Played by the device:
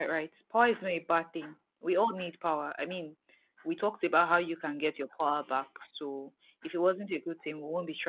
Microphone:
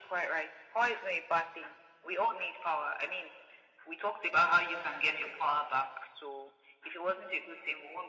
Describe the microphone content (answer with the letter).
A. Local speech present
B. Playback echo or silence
B